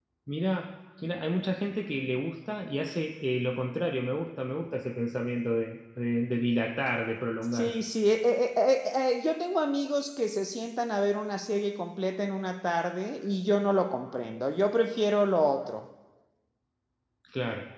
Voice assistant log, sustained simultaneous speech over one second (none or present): none